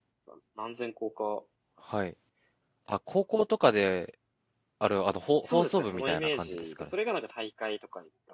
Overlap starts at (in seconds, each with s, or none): 5.4 s